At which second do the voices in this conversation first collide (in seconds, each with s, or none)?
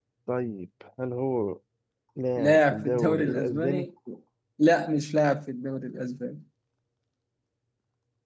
2.4 s